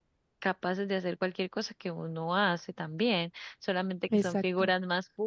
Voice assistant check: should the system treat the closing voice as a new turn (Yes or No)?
No